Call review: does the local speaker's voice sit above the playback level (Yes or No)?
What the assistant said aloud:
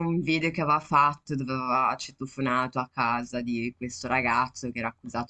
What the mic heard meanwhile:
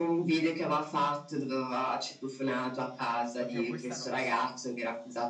No